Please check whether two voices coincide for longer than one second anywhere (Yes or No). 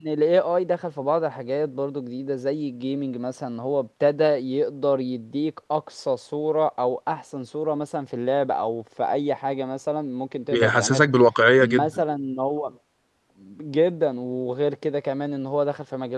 No